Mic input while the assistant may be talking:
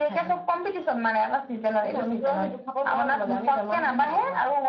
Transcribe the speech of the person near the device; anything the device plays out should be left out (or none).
none